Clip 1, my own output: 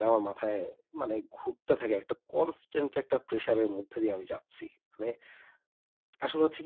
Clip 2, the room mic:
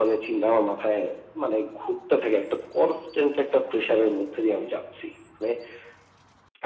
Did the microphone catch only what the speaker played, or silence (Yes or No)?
Yes